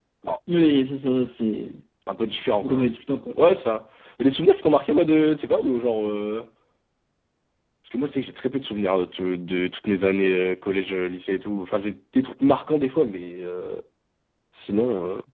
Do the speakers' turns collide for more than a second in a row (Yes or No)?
No